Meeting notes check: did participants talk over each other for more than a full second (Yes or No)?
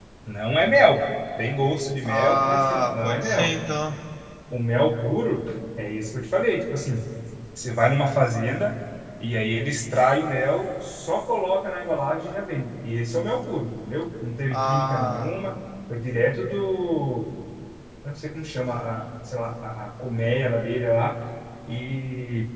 Yes